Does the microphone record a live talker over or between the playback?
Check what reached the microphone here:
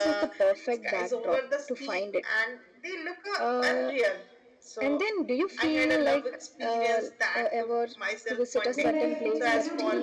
Yes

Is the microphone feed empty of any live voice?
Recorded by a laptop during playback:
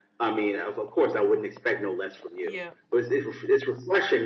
No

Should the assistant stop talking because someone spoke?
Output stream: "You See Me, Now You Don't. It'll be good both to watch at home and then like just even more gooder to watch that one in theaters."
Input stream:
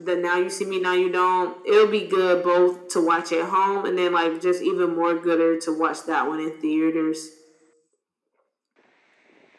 No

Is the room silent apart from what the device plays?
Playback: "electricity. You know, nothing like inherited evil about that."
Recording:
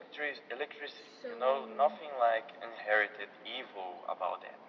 No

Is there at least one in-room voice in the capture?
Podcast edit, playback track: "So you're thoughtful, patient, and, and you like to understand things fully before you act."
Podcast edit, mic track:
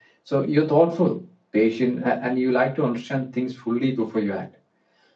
No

